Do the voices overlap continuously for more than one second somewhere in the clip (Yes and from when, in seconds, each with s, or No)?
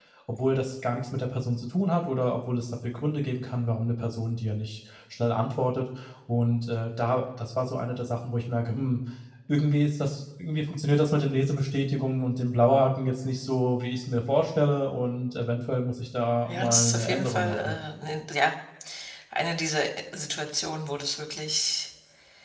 Yes, from 16.5 s